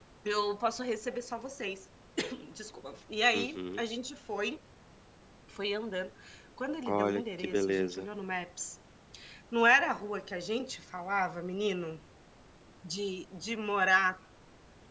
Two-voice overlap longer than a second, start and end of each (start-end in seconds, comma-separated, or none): 6.9-8.1